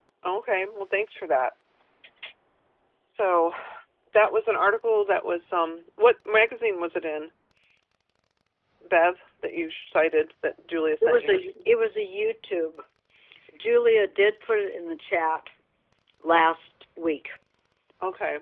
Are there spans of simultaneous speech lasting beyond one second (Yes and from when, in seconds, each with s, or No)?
No